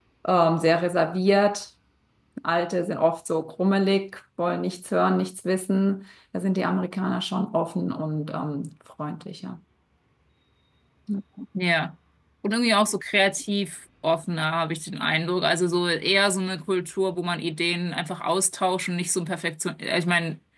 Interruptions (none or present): none